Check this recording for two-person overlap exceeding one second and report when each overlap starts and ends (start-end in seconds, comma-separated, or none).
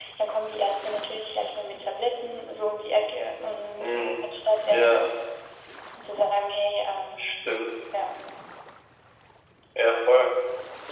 none